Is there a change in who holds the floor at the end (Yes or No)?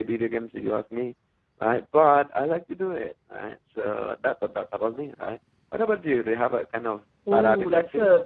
Yes